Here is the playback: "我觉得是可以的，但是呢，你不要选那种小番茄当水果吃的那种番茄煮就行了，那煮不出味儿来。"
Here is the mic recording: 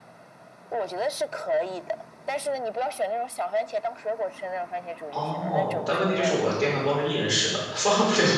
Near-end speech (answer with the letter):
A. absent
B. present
B